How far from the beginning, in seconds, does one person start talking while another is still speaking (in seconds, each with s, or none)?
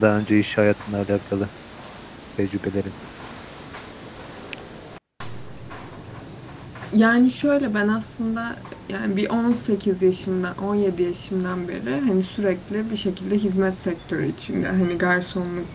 none